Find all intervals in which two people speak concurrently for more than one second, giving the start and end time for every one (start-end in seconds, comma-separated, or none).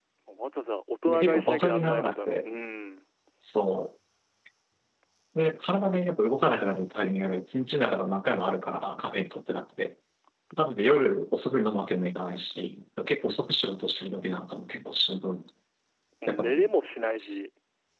1.1-2.4